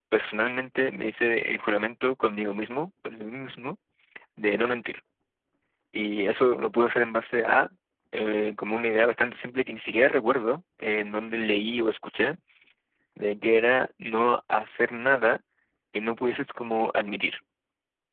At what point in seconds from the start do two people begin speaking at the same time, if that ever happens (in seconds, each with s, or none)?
none